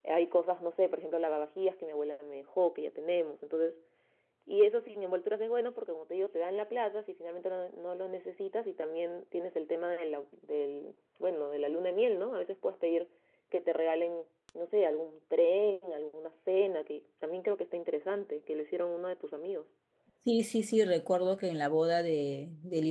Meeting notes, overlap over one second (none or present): none